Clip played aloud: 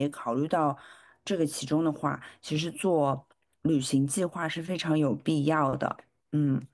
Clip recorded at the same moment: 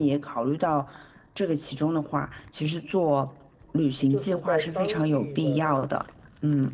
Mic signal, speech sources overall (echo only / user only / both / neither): both